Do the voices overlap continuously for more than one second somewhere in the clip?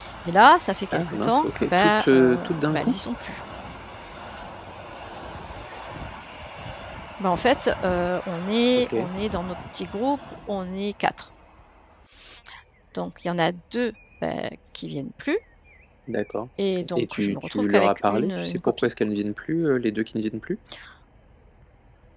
Yes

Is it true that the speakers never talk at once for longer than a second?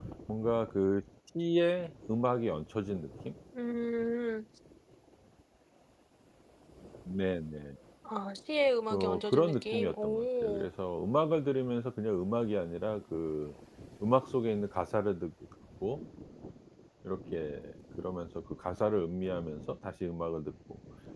No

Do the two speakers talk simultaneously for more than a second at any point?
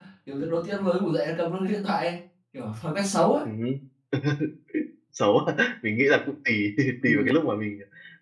No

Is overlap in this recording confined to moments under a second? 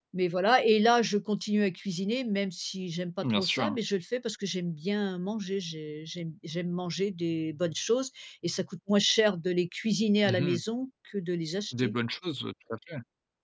Yes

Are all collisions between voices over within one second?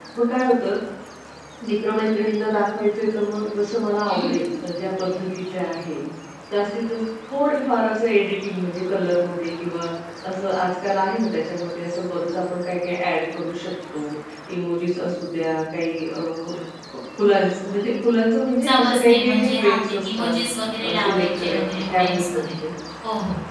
No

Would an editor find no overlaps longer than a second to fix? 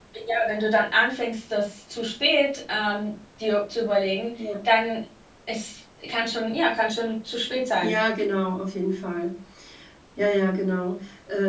Yes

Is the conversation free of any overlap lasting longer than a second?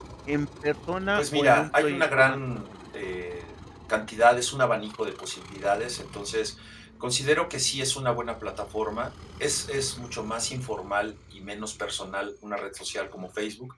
No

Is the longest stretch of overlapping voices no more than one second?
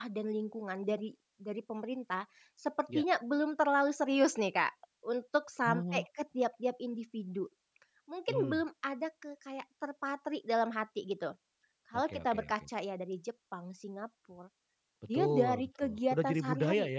No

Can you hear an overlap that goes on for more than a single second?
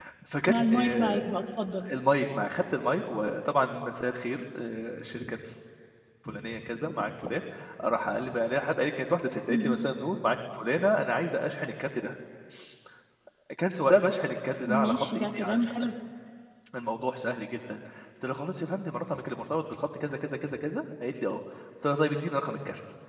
Yes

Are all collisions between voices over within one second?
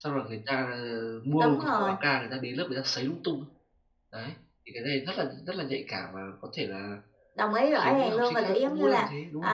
No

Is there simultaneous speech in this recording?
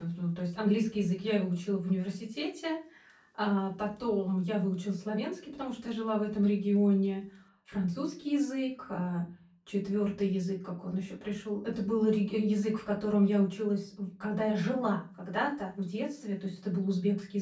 No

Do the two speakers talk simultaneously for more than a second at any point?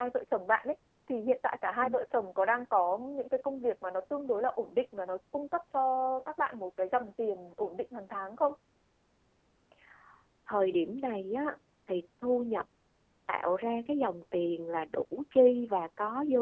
No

